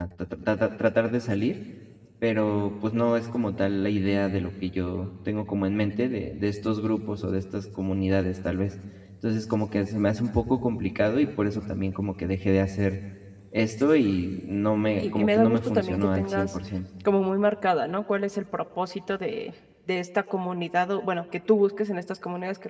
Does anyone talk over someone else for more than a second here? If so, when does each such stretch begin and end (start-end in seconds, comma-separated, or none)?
14.8-16.6